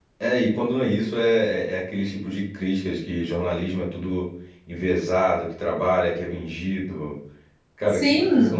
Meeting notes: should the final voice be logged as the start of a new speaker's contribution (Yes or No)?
Yes